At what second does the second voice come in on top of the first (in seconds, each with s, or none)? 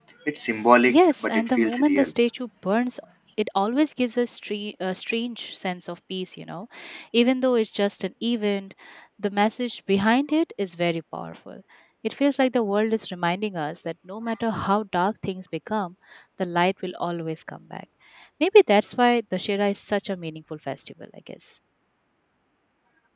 0.9 s